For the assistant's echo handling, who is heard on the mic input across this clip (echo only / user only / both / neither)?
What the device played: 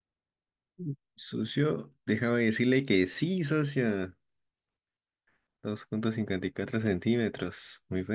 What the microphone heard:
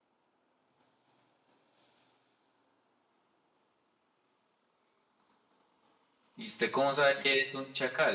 user only